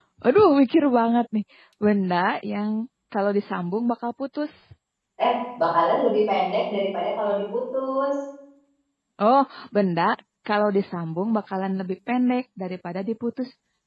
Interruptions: none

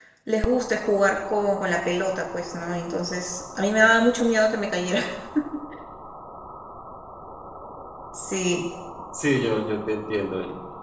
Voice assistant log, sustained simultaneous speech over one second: none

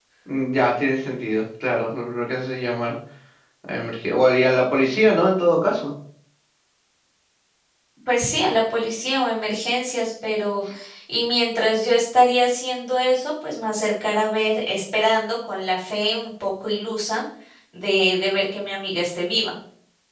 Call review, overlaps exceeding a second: none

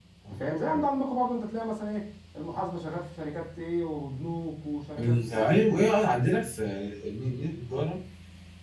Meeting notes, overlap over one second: none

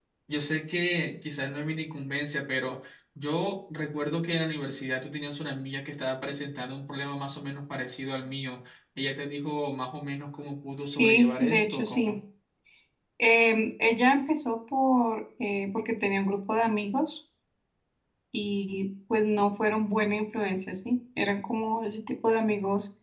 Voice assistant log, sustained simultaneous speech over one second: present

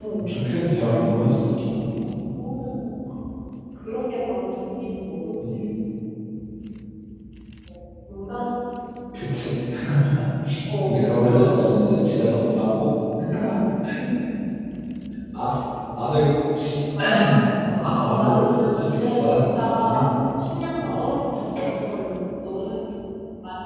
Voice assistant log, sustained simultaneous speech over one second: present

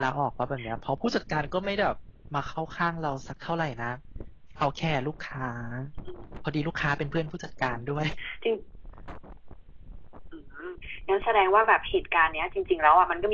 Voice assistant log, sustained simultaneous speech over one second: none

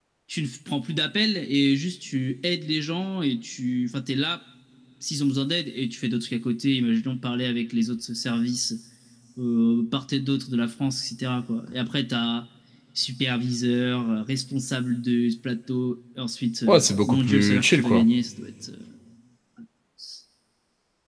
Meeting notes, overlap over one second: present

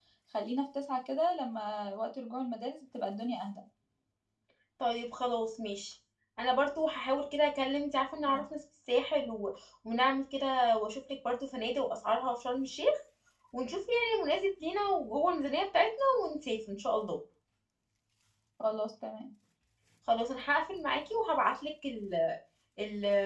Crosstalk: none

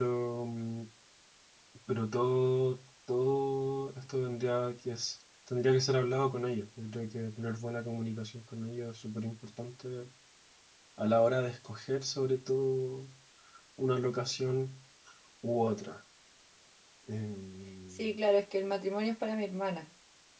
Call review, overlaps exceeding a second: none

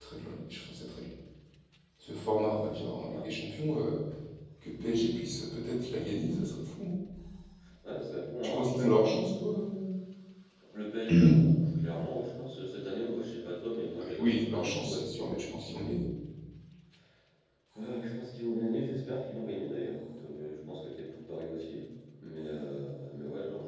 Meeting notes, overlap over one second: present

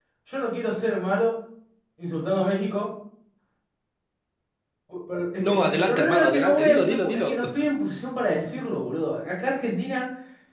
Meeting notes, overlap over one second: present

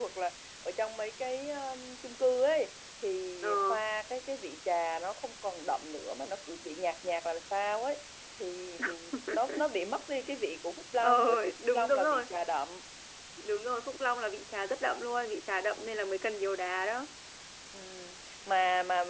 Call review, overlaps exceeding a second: present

